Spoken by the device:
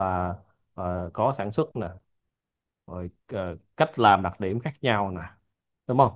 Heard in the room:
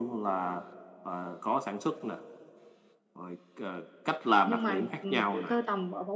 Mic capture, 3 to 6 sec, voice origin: both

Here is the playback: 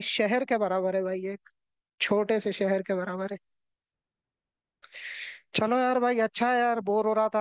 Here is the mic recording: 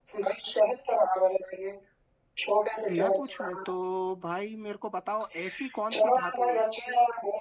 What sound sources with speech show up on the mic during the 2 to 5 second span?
both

